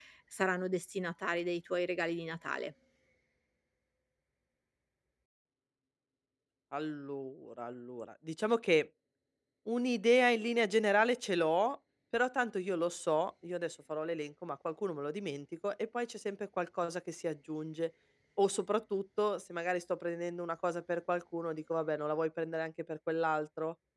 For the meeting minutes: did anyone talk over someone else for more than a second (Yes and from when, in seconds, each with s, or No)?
No